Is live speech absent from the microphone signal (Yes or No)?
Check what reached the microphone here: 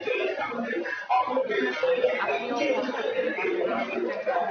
No